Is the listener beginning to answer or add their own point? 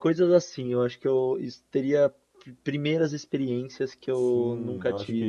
Yes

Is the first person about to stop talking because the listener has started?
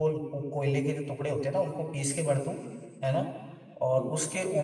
No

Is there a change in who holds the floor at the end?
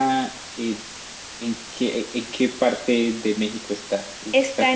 Yes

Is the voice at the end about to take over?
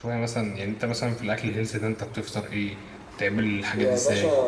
Yes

